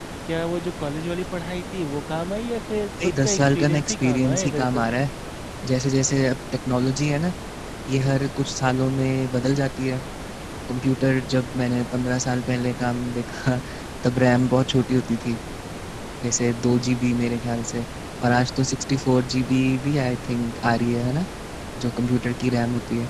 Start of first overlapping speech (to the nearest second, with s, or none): 3 s